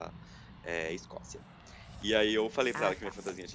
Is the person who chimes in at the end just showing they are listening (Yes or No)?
Yes